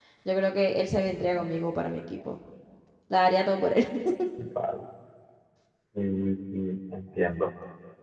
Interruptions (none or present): none